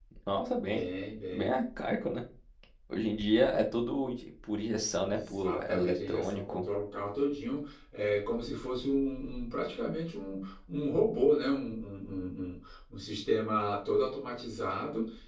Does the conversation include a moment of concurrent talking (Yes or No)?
Yes